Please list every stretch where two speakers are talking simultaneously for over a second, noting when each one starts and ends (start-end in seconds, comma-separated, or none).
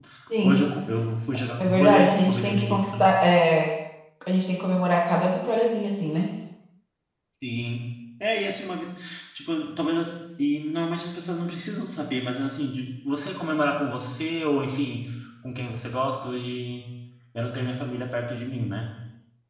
1.6-2.8